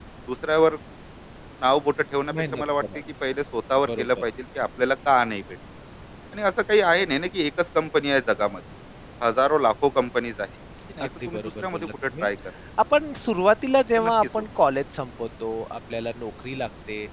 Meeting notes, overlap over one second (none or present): present